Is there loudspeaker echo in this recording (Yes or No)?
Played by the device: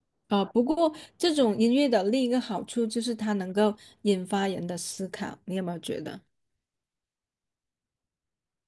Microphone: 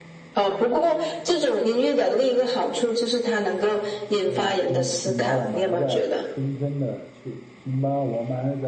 Yes